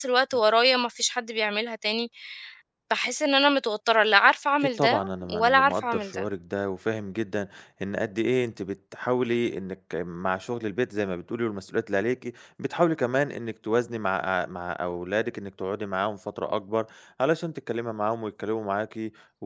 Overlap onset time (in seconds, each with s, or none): 4.6 s